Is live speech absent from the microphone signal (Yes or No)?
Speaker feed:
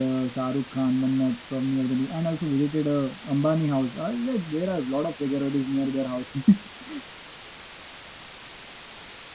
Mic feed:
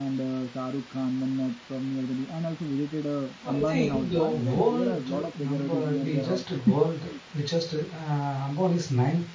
No